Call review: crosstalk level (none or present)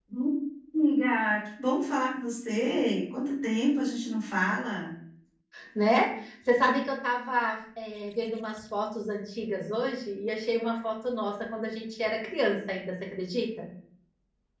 none